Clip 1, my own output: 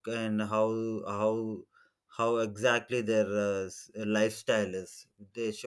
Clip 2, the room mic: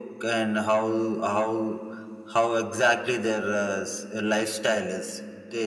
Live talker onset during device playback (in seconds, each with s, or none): none